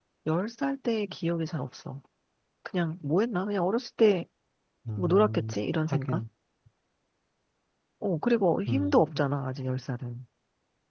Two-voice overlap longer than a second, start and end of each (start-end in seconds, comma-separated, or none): 5.0-6.2